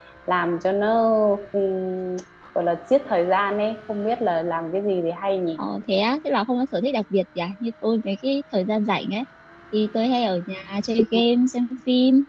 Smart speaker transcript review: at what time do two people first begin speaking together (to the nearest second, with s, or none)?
none